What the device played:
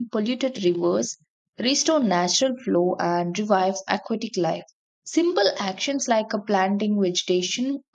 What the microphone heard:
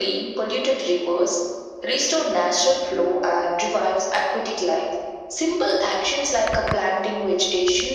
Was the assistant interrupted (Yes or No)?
No